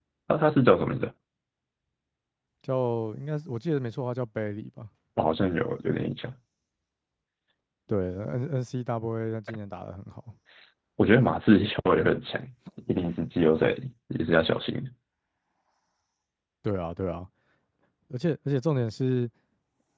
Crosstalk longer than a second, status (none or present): none